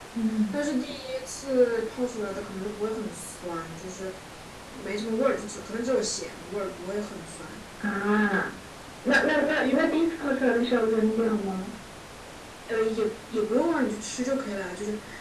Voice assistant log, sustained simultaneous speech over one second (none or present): none